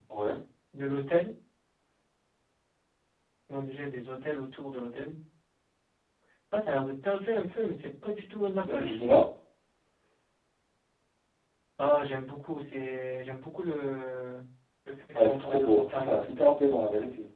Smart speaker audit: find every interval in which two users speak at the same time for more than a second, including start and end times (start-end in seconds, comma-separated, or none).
15.1-16.4